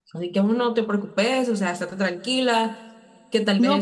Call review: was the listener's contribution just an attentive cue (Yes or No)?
No